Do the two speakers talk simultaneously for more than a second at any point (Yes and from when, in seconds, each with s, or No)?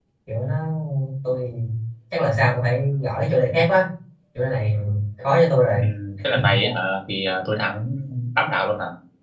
No